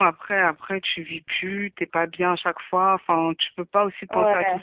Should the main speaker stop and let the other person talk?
No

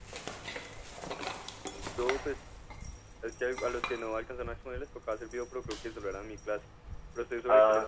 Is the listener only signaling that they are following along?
No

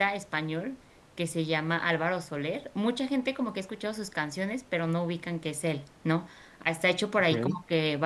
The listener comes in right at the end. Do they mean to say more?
No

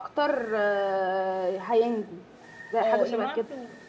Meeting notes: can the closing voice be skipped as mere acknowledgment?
No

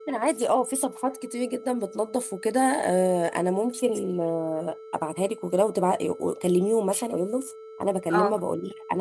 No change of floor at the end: Yes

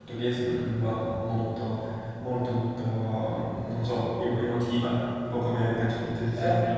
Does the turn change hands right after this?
Yes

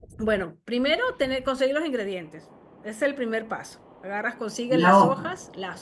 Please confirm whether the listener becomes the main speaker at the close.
No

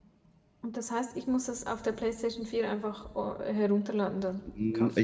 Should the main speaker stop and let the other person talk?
Yes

